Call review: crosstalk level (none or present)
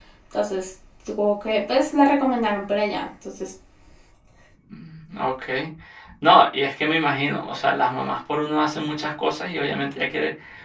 none